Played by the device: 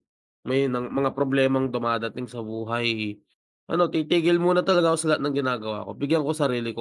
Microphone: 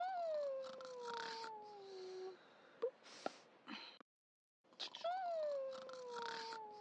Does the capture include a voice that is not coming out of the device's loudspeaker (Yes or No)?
No